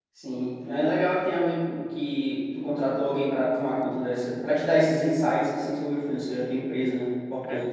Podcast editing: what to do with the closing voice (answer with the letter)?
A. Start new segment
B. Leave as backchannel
A